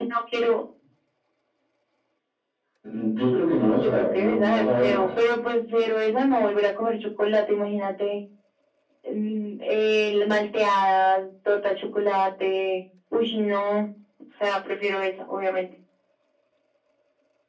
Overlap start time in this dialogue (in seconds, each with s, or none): 3.6 s